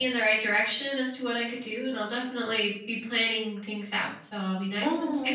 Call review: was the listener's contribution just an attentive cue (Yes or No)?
No